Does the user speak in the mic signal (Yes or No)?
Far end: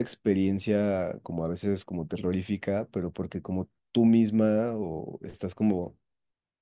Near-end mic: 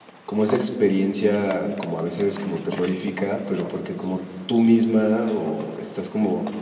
No